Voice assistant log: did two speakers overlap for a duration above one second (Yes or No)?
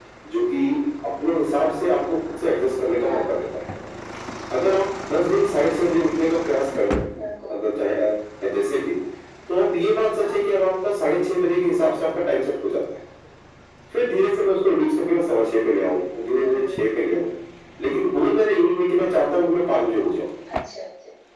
No